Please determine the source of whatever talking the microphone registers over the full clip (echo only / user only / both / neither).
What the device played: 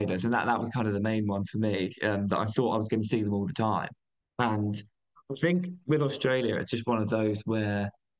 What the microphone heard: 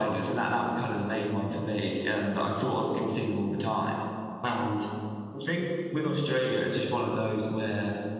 echo only